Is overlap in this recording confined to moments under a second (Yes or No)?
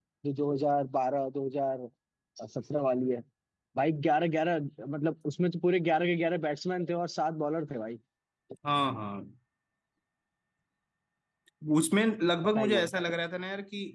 Yes